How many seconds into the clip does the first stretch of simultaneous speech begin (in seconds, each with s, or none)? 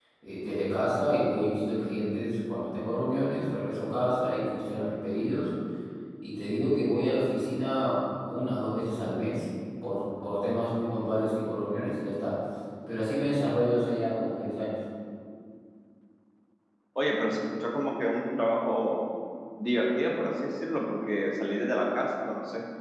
none